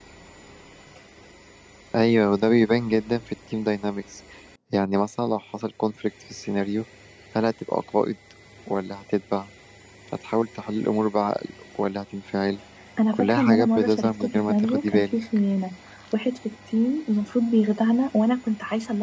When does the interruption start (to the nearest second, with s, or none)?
13 s